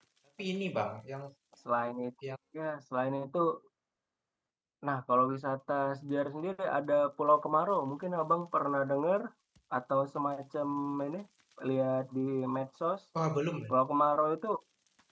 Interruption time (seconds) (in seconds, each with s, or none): none